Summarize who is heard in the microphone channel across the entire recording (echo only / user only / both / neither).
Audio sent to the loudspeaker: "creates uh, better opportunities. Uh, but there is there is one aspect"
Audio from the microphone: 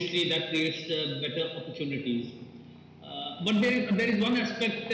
echo only